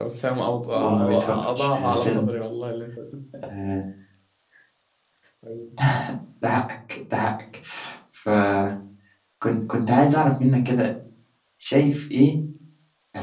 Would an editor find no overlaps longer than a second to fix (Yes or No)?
No